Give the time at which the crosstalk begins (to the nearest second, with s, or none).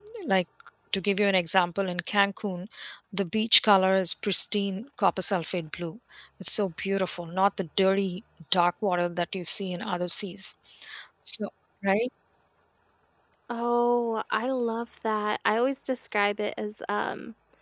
none